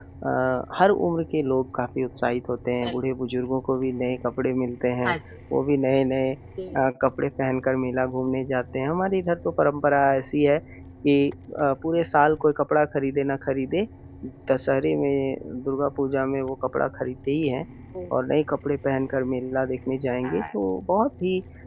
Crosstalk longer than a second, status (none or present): none